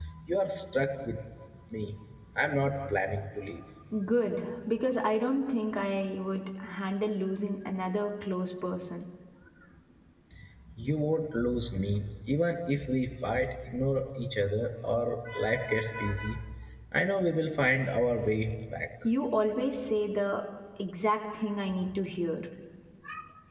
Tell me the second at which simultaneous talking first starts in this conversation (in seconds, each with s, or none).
none